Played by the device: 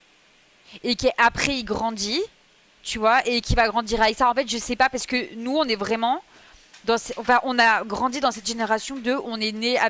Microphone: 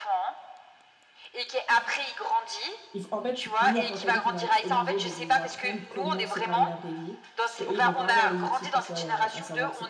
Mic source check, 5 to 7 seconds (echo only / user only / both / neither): both